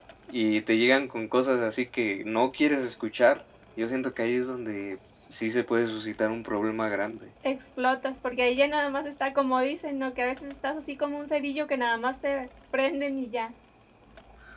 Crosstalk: none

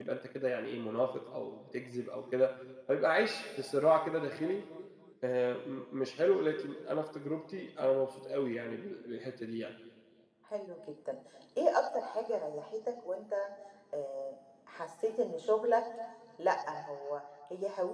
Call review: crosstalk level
none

